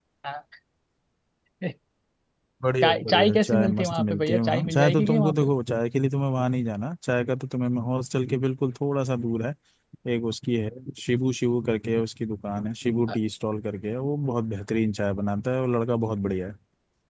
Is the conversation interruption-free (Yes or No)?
No